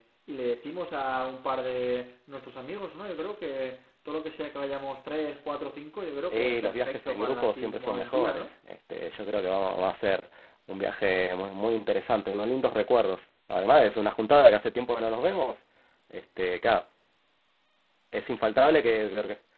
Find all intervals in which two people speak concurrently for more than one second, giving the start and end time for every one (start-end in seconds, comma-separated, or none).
6.3-8.5